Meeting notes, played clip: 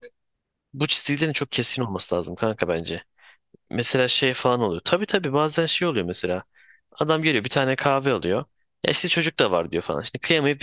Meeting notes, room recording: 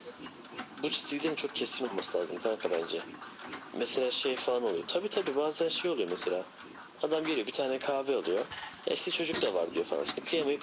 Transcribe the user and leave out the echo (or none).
none